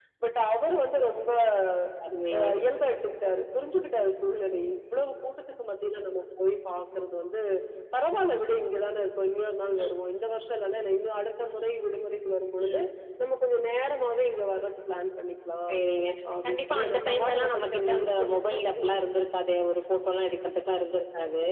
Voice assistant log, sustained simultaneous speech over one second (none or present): present